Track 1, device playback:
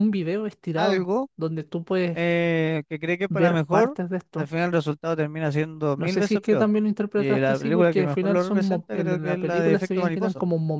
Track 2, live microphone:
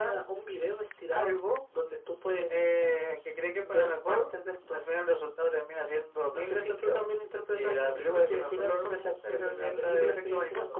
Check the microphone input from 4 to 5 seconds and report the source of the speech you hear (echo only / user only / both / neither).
echo only